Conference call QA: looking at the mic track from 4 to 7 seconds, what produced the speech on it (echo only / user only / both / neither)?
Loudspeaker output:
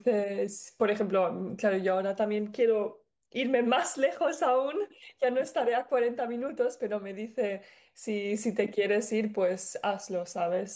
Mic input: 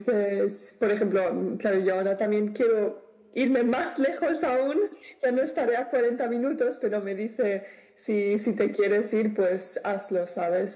echo only